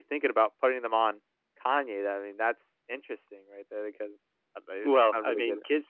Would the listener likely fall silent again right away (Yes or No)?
No